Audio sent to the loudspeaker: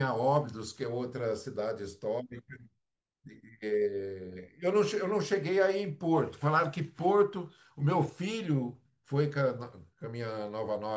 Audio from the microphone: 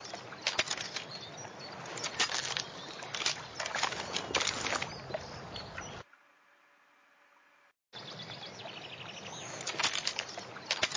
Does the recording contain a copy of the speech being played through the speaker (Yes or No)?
No